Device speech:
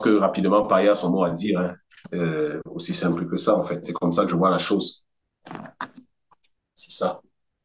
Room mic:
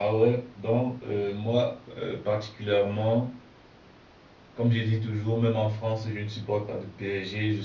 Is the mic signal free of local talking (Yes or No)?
No